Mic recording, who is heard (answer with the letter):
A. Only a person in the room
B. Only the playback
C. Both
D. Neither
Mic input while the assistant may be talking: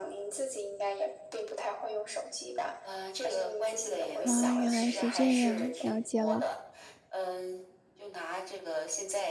C